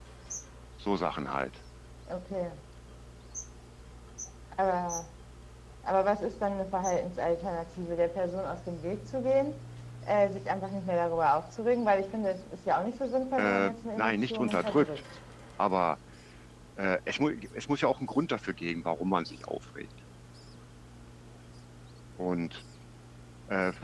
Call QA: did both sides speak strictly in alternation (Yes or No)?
No